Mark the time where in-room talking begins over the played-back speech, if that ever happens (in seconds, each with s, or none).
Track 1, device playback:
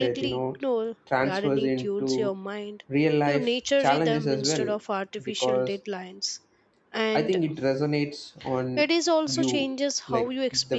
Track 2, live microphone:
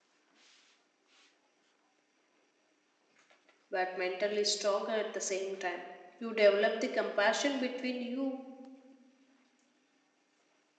3.7 s